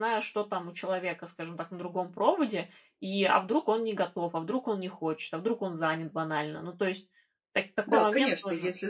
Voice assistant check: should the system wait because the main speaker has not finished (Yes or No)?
No